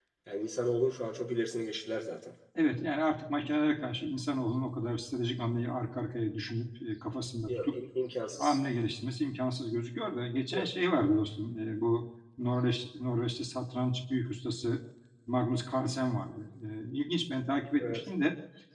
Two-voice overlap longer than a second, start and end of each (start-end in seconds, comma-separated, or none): none